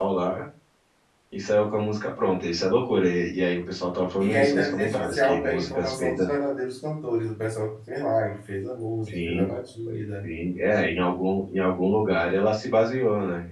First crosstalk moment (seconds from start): 4 s

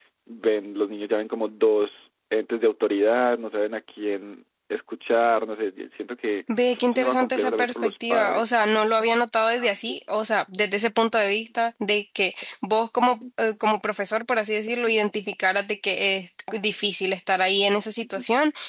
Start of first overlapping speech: 7 s

